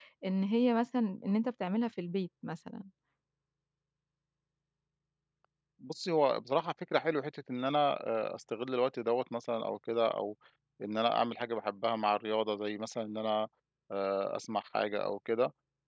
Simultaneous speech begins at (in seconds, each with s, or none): none